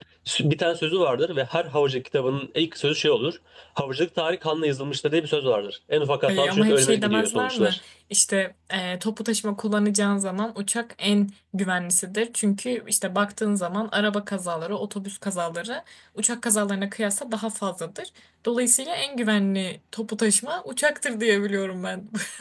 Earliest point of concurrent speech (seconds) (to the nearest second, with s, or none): 6 s